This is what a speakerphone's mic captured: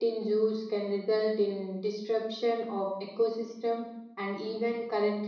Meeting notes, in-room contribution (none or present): present